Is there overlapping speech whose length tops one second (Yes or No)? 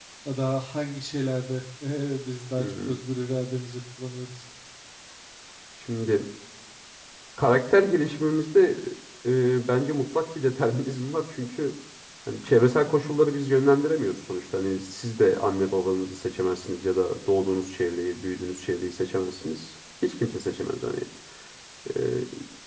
No